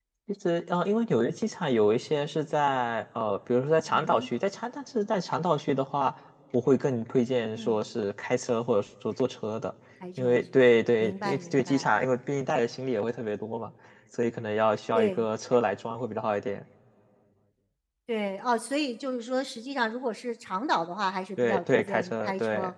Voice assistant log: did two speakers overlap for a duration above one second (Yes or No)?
Yes